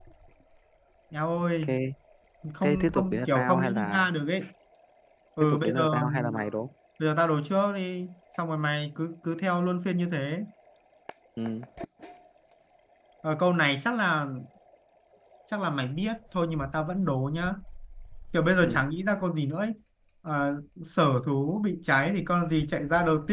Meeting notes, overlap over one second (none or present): present